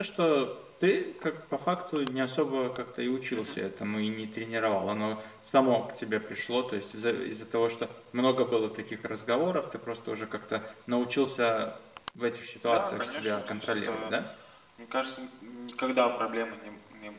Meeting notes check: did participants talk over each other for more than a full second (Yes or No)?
Yes